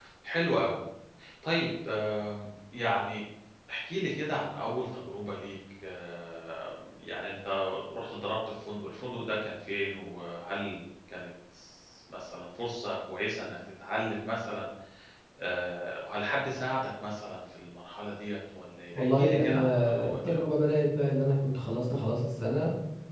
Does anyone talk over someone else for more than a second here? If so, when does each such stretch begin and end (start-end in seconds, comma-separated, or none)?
19.0-20.4